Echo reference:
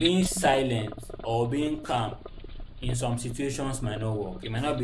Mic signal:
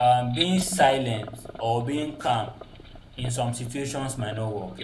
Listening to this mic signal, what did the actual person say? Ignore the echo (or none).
none